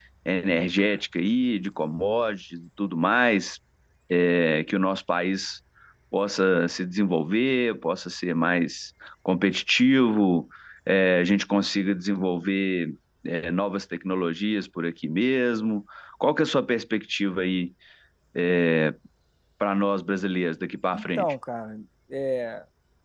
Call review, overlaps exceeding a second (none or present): none